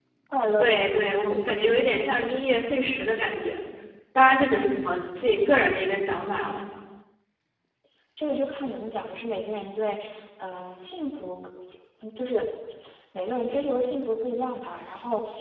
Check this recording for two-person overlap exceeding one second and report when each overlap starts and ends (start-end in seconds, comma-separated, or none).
none